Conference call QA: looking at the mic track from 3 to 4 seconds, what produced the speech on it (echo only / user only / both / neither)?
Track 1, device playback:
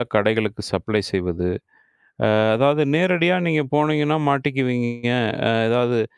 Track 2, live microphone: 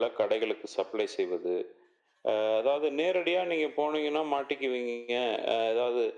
echo only